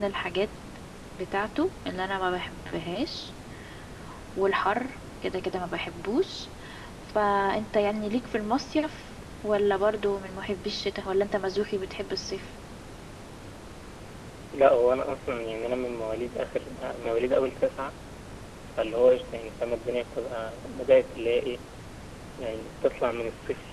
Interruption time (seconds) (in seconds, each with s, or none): none